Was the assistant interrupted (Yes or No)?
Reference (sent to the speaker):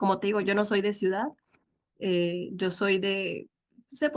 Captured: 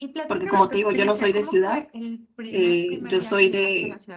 Yes